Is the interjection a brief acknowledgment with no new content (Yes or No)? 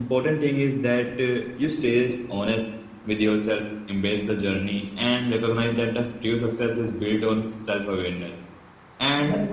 Yes